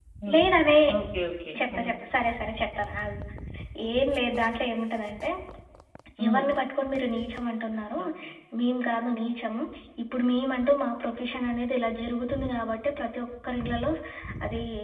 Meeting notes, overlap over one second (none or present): none